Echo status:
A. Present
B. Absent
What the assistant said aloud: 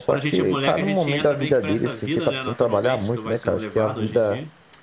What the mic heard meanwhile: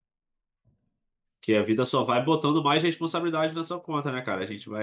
B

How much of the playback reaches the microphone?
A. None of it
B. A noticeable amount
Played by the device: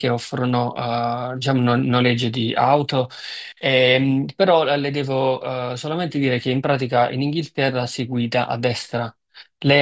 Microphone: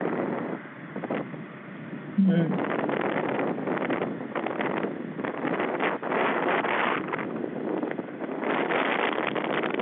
A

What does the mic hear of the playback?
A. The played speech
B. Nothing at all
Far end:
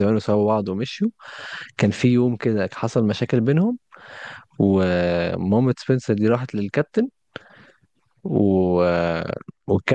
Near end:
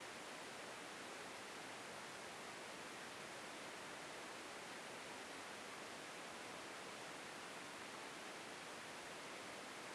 B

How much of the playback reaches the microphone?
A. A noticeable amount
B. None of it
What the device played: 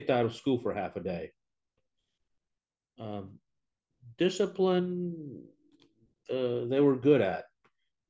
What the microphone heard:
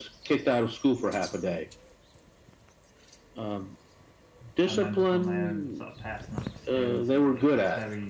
A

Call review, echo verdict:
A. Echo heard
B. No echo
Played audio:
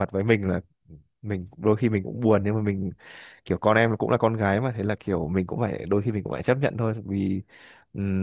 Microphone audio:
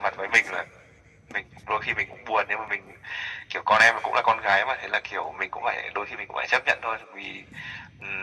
A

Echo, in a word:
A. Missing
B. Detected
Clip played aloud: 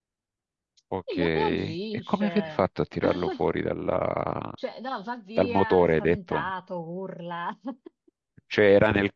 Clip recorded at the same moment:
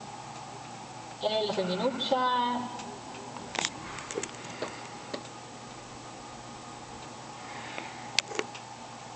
A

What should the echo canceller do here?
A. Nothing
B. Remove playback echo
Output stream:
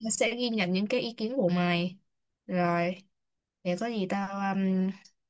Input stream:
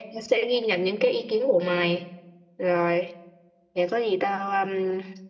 B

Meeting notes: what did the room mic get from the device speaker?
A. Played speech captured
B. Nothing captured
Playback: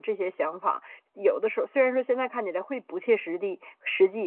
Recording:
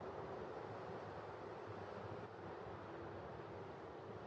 B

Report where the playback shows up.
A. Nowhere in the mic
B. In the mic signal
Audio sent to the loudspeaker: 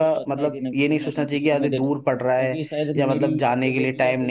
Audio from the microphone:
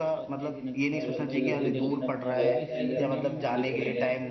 B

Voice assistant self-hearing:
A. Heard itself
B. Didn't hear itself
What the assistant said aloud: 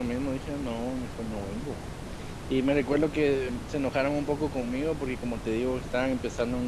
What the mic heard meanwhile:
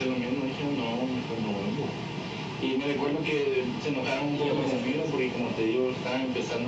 A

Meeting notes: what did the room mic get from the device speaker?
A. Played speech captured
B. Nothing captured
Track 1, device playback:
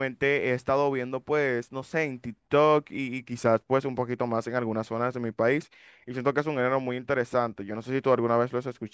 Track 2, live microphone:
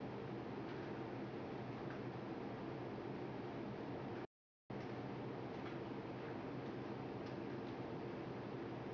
B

